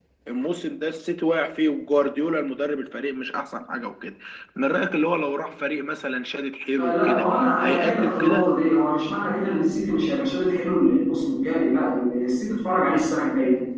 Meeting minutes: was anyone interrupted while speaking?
Yes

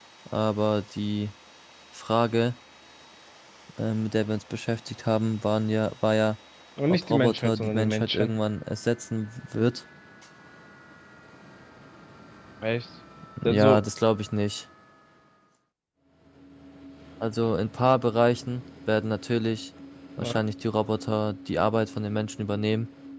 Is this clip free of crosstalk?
No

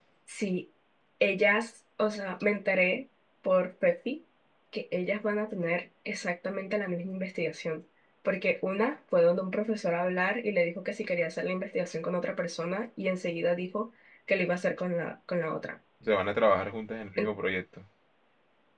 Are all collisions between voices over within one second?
Yes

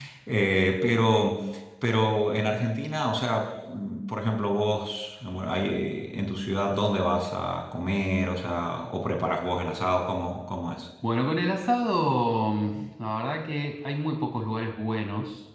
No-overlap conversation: Yes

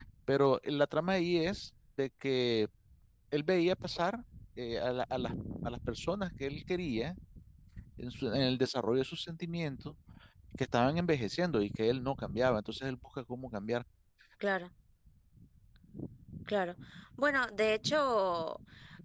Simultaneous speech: No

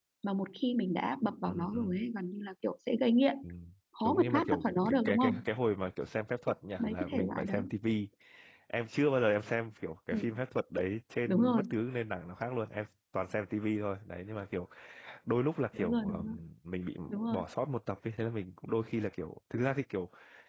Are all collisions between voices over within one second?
No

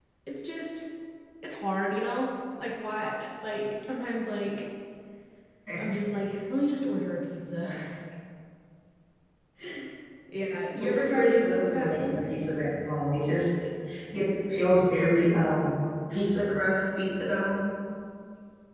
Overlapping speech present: Yes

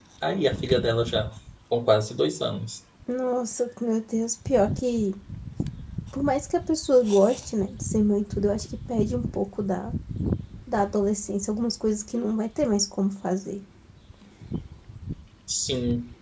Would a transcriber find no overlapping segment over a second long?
Yes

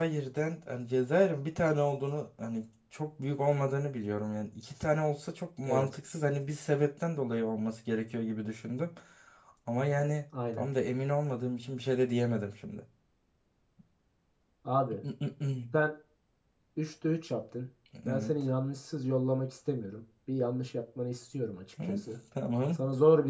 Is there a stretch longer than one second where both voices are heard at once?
No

